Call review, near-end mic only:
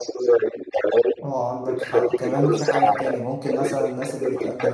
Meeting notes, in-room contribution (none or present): present